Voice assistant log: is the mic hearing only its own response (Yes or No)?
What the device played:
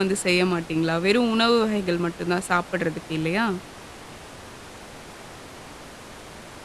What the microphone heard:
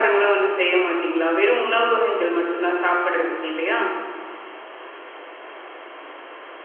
Yes